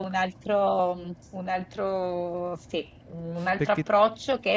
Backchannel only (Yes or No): Yes